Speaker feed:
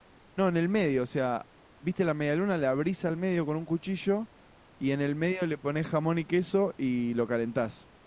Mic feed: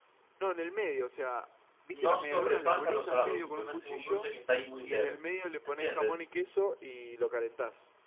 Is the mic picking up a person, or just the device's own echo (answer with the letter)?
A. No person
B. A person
B